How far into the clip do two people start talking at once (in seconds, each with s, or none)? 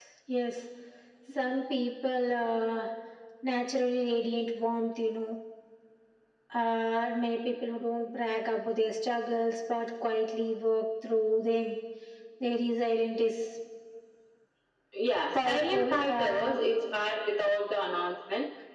15.3 s